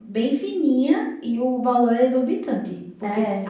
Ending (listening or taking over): listening